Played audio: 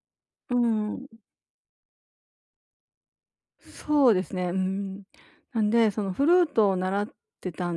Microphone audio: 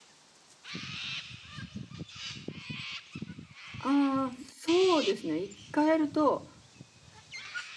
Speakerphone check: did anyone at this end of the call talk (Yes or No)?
Yes